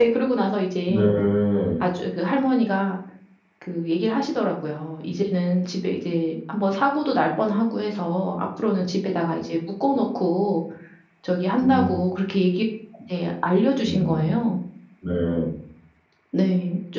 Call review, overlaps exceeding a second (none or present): none